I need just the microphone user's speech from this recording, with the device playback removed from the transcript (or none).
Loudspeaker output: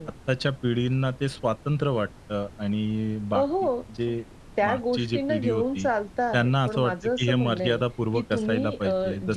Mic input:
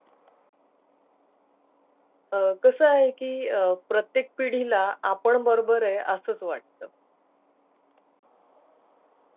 अ, कसं आहे की अ, प्रत्येक पिढीला आपण बरोबर आहे असंच वाटतं.